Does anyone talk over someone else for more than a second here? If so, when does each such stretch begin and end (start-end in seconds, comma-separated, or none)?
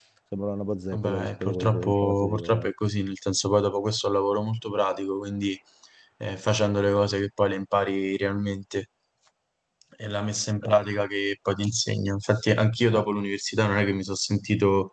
0.9-2.7